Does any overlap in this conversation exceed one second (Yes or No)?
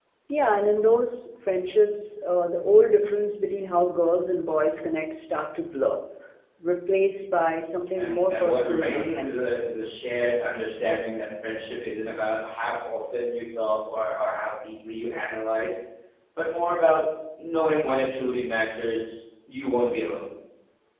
Yes